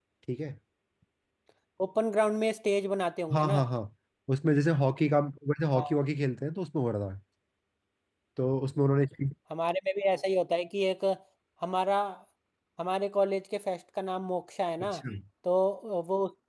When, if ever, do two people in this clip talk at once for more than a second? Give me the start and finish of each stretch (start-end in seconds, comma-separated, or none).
none